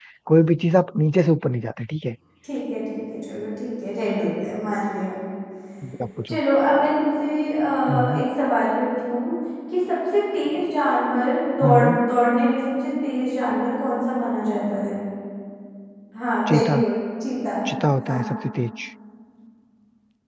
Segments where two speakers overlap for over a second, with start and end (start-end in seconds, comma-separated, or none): none